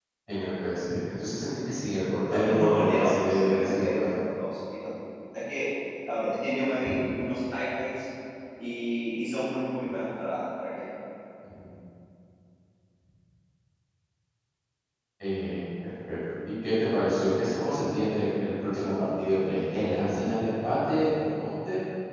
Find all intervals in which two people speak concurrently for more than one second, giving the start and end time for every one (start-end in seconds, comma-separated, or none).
2.3-4.2